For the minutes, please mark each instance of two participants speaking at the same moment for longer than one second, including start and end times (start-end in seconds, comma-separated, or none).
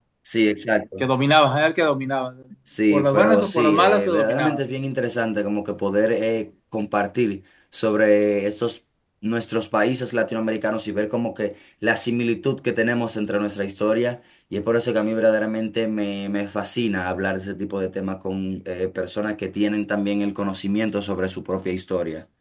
2.9-4.6